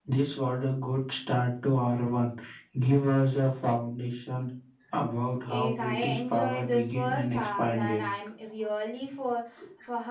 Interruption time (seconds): 5.5 s

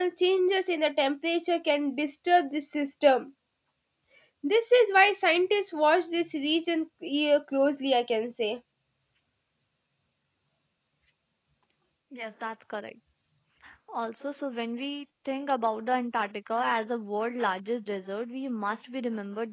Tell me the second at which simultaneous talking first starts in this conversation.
none

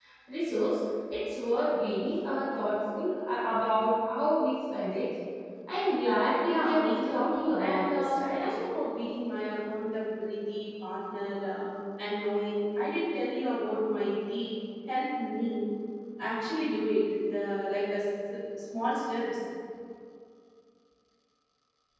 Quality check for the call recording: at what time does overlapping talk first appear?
6.4 s

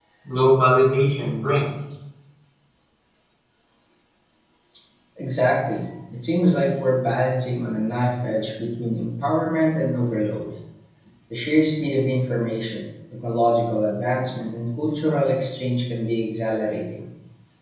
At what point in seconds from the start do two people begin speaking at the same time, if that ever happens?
none

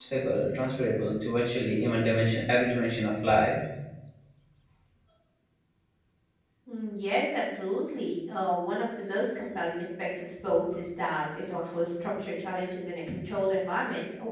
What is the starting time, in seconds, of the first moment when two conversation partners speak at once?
none

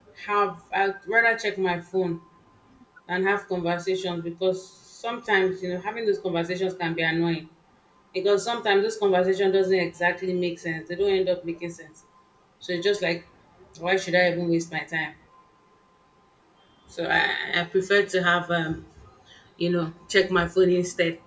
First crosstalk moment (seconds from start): none

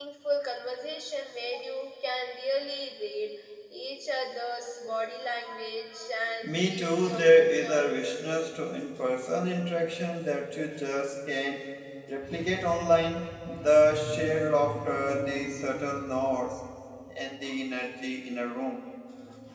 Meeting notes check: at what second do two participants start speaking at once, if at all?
6.4 s

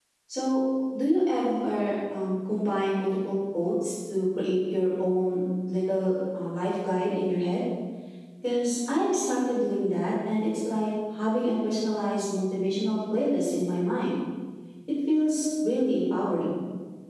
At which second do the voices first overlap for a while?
none

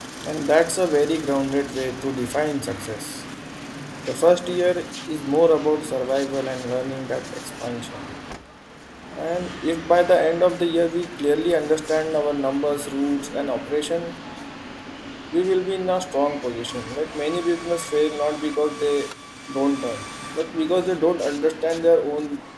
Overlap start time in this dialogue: none

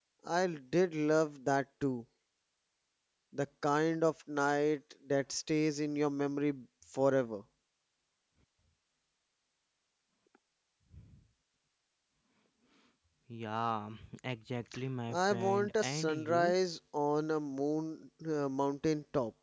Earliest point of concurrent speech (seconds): 15.1 s

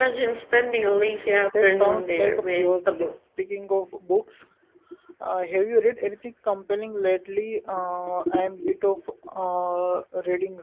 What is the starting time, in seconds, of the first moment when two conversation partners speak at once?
1.5 s

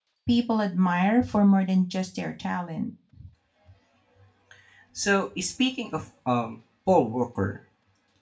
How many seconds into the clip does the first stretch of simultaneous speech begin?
none

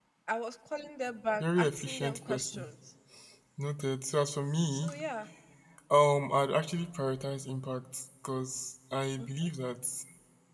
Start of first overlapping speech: 1.4 s

